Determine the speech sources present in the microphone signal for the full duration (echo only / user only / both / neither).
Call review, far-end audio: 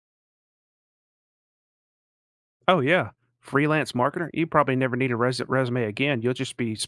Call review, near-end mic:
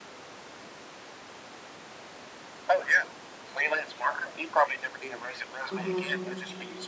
both